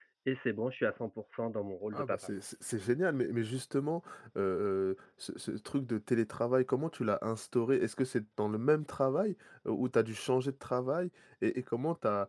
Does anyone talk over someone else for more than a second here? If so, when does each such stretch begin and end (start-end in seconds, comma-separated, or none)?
none